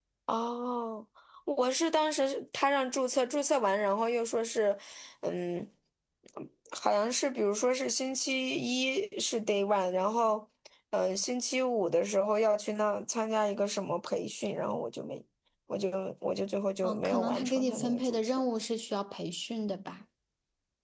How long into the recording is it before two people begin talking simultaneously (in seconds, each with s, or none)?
16.8 s